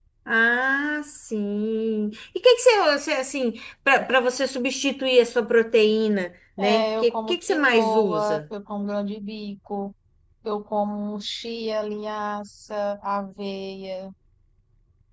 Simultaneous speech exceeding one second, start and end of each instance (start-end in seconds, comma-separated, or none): 6.6-8.4